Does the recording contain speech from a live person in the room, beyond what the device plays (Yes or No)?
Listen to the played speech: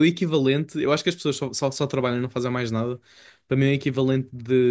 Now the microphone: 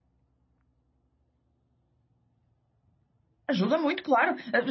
Yes